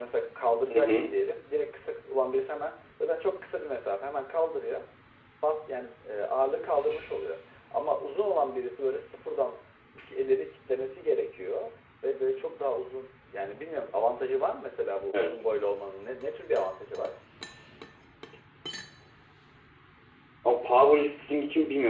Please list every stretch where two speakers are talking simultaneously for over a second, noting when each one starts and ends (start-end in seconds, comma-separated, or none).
none